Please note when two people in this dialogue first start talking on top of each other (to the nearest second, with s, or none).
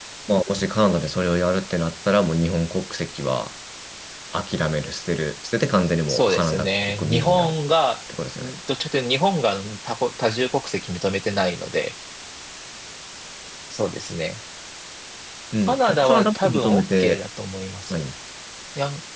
6 s